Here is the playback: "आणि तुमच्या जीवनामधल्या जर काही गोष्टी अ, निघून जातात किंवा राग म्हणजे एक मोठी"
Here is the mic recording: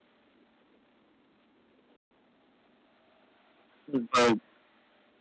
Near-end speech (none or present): present